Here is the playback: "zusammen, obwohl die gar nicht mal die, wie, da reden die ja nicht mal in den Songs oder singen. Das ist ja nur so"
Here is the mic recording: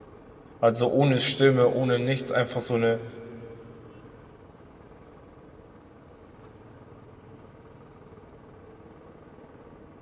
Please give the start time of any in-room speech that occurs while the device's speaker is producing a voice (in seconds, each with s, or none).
0.6 s